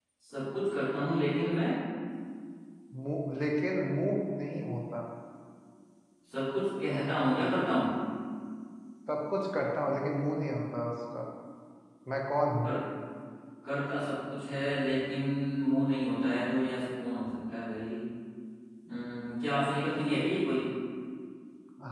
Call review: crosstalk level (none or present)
none